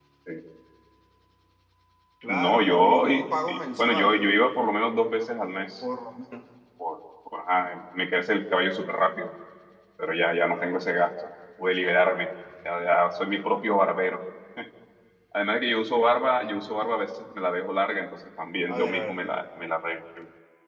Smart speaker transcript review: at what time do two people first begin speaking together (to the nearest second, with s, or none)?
2 s